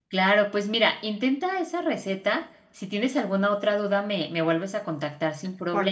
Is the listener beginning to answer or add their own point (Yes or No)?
Yes